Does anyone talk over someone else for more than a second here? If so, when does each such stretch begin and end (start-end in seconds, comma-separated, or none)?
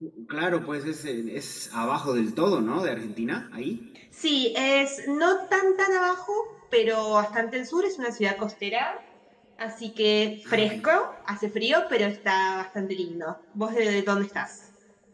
none